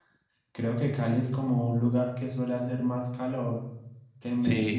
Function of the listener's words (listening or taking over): taking over